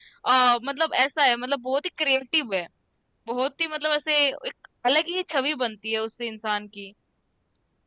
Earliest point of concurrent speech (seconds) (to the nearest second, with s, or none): none